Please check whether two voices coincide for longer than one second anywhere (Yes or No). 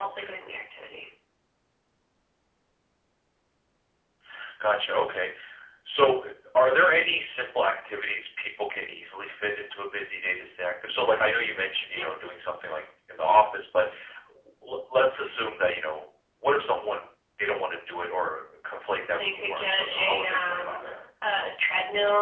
Yes